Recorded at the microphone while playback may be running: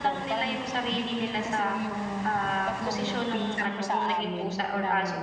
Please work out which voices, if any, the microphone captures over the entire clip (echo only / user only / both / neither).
both